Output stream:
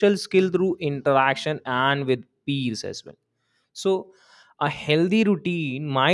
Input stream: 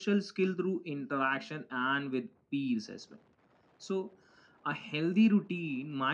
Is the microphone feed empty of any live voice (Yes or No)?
Yes